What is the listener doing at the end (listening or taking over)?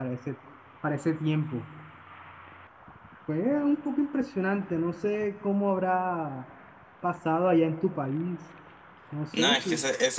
taking over